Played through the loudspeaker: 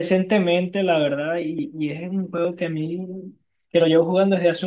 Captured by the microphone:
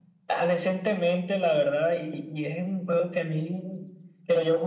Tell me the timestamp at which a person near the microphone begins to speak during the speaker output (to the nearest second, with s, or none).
none